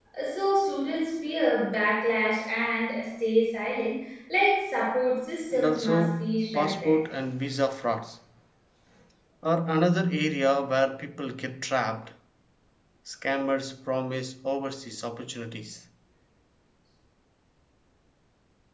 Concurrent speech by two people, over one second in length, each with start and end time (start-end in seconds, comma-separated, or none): 5.5-7.0